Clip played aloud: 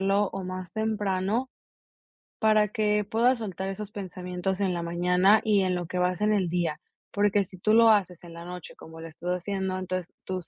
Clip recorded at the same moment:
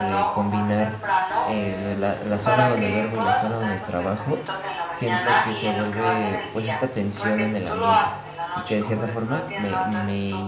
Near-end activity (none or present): present